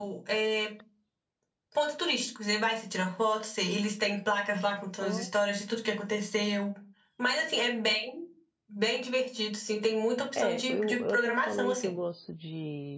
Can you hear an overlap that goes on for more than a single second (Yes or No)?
Yes